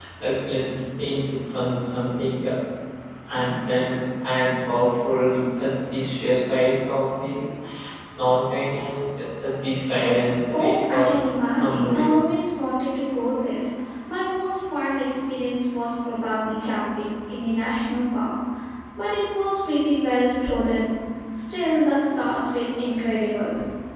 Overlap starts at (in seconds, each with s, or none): 10.5 s